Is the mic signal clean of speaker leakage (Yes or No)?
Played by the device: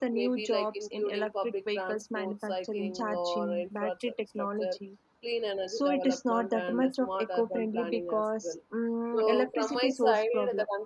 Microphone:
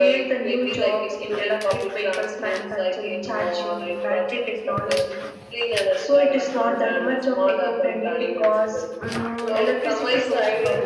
No